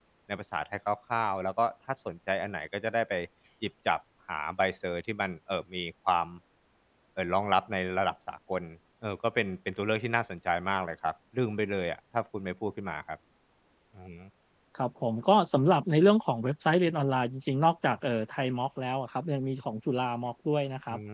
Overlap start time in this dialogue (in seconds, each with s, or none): none